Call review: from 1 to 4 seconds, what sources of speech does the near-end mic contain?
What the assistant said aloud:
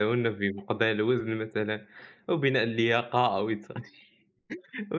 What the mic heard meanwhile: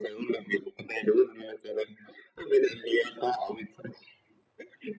echo only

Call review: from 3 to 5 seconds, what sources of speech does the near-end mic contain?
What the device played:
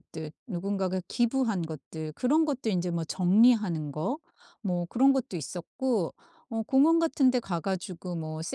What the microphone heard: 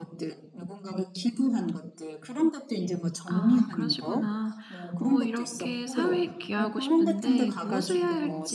both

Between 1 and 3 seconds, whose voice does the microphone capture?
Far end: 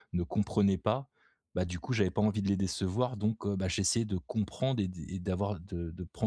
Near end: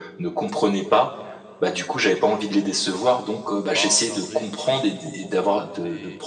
echo only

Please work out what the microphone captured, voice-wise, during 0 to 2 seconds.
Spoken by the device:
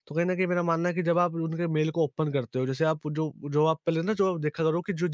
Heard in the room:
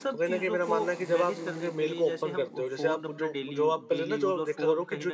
both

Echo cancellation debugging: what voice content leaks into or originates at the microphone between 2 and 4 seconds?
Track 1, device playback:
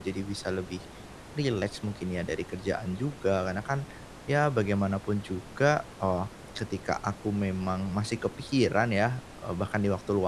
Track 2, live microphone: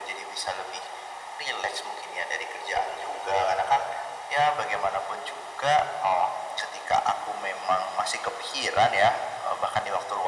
echo only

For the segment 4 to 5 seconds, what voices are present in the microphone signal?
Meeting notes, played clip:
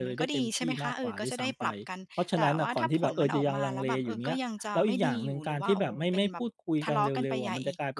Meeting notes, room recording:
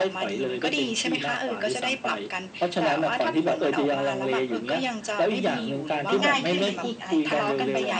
echo only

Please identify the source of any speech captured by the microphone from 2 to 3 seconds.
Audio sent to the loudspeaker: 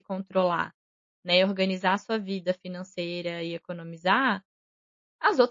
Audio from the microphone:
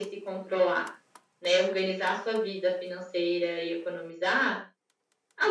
echo only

